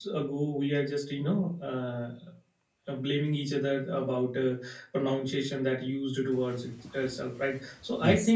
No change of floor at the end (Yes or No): Yes